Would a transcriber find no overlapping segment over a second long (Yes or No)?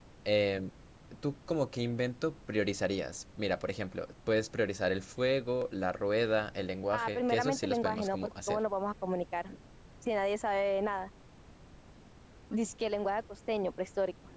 No